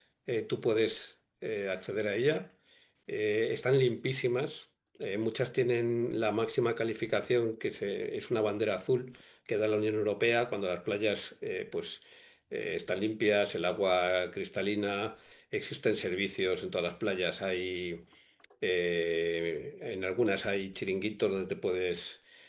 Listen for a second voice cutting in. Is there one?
No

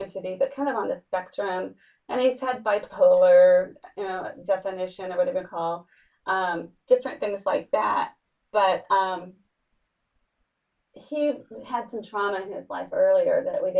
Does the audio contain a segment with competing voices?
No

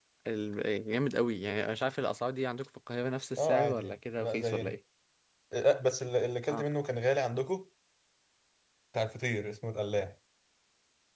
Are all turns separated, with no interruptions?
No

